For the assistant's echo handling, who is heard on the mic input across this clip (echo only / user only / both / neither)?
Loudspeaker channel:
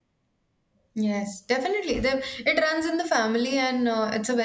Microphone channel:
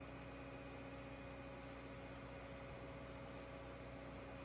neither